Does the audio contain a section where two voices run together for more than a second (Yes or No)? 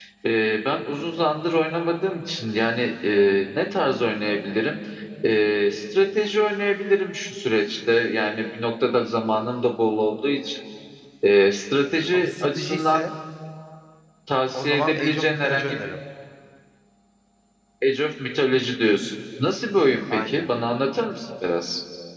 Yes